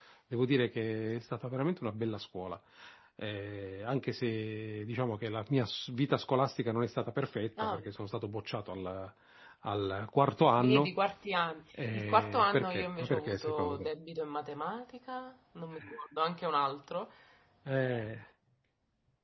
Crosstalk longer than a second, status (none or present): present